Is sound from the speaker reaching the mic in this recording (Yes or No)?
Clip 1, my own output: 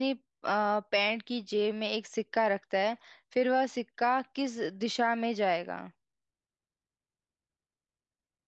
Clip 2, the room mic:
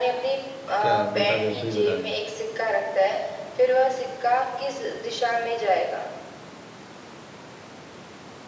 Yes